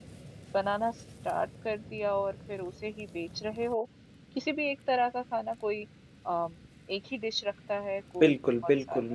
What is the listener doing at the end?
taking over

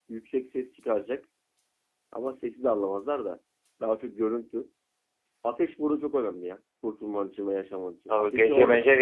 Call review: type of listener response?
taking over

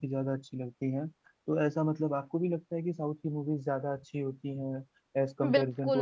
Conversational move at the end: taking over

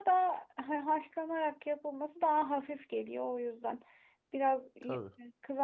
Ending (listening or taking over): listening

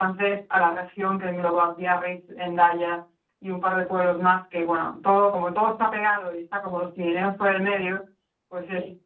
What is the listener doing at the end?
listening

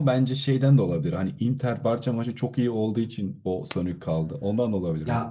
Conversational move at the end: taking over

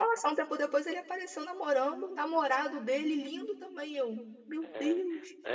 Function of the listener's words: taking over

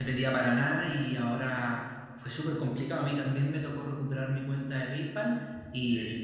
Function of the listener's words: listening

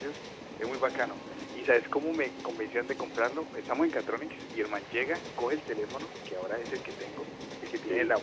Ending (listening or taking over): listening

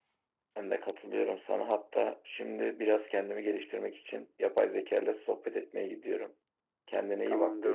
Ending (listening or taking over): taking over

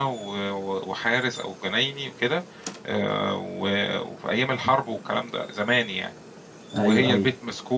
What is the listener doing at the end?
listening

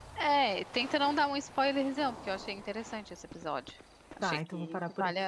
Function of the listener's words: taking over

